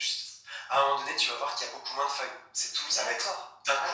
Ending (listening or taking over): taking over